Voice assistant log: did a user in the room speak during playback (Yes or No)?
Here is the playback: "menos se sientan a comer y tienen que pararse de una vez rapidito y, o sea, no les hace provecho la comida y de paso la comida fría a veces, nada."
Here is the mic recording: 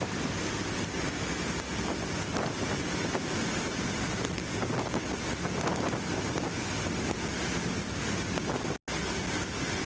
No